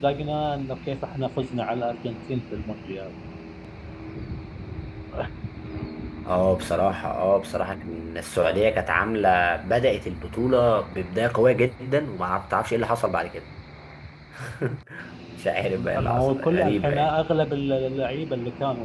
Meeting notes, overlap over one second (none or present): present